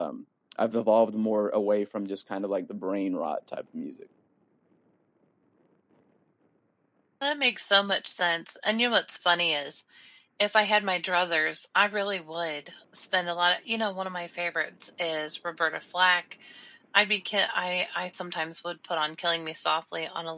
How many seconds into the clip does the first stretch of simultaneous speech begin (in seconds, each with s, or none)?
none